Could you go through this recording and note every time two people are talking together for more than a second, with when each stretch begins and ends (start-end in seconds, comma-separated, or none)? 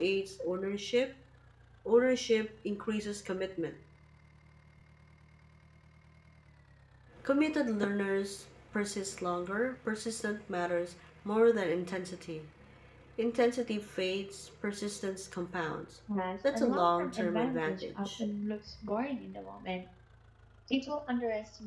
16.5-18.2